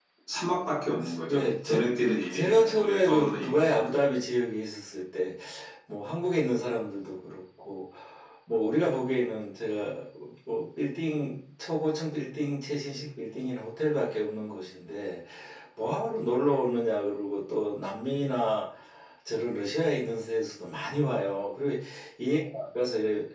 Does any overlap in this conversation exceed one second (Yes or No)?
Yes